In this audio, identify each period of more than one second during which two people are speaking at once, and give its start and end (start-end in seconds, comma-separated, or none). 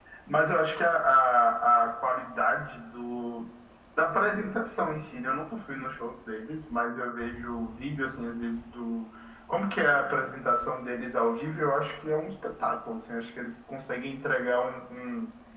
none